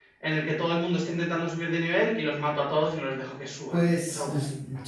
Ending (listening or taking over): taking over